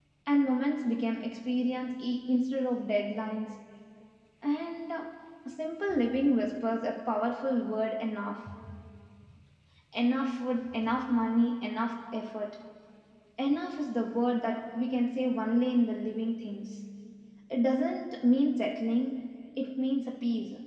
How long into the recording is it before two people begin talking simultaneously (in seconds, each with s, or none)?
none